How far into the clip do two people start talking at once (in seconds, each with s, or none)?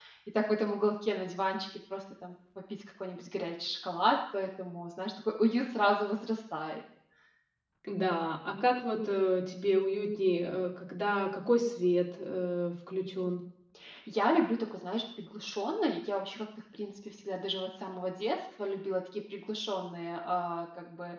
none